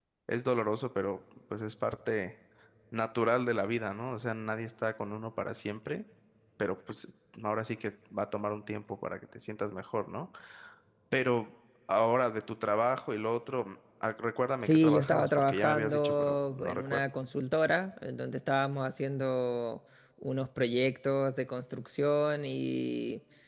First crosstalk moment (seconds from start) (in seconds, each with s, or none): 14.6 s